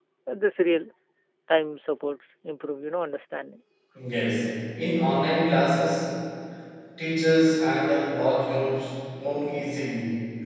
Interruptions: none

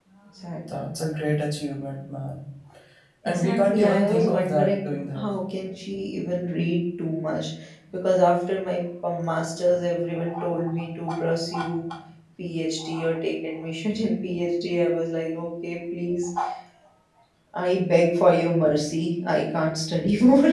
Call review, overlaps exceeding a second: present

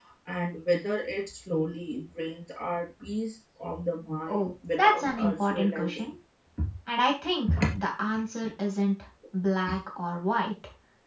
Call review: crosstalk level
present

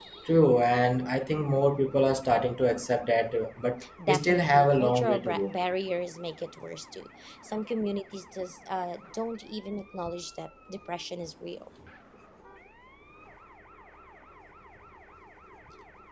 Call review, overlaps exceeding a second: present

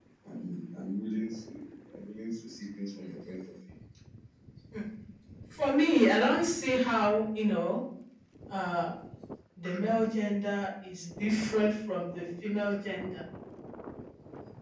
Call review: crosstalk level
none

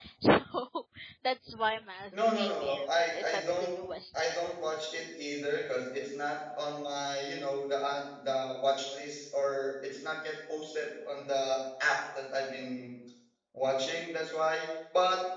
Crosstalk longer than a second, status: present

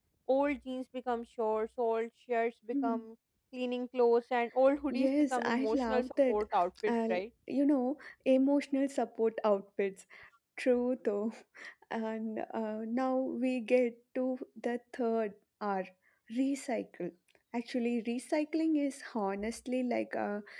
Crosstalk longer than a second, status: present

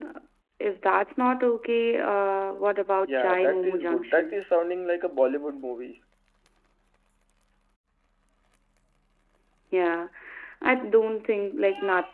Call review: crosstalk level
present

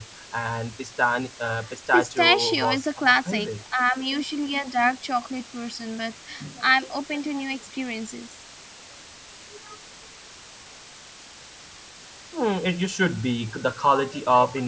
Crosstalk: present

